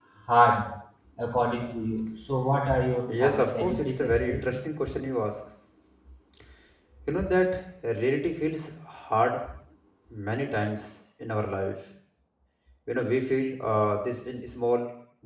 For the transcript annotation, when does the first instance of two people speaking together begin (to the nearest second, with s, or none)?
3 s